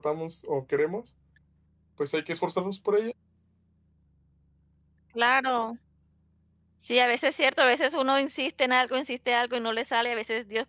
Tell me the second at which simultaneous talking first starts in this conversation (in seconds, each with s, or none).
none